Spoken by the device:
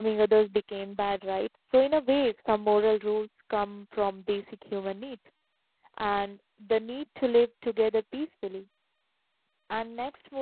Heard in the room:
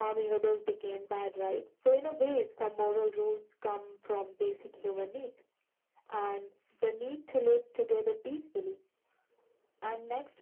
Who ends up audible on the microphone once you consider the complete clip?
echo only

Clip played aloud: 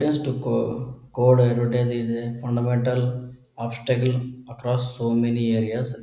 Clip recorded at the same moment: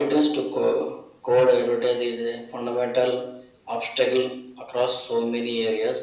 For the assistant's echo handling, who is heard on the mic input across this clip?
echo only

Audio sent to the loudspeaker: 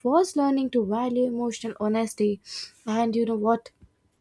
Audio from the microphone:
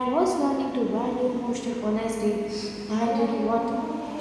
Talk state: both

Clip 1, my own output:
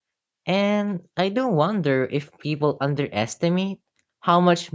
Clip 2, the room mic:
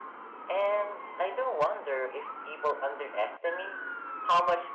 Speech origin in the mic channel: echo only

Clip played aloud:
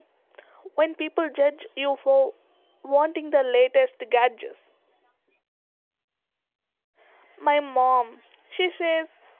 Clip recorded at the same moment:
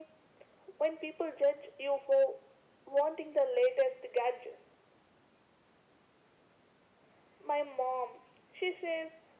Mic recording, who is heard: echo only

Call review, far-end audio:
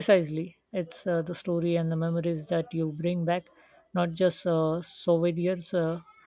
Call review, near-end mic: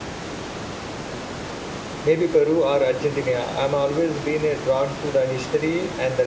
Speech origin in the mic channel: user only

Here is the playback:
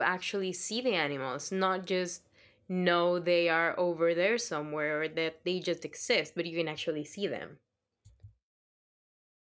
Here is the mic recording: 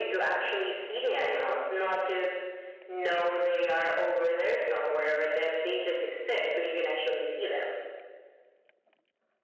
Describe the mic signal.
echo only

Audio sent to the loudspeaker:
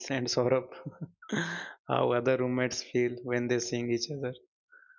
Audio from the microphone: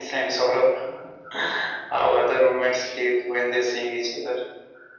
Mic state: echo only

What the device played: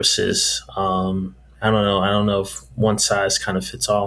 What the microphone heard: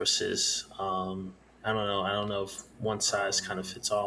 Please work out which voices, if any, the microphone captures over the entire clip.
both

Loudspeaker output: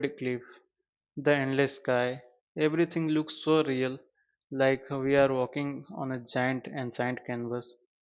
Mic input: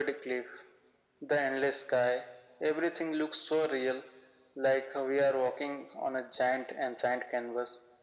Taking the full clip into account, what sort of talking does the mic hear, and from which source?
echo only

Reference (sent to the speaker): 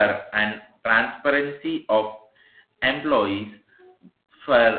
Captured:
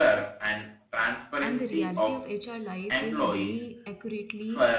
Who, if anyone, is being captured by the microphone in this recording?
both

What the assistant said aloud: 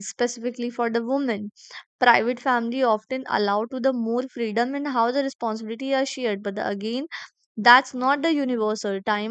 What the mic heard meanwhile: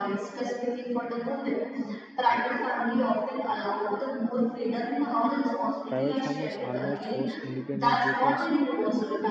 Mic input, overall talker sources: both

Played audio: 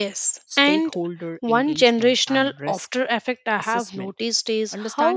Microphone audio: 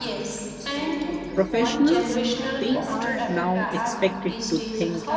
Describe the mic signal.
both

